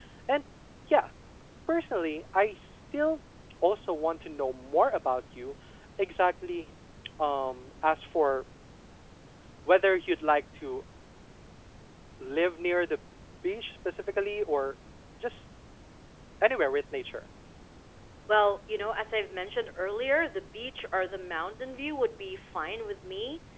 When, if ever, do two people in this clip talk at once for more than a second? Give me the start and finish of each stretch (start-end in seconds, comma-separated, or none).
none